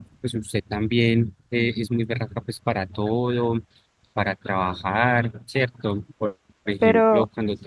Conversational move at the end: listening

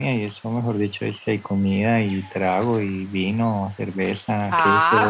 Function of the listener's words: taking over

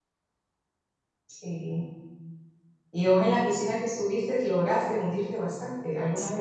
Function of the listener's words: taking over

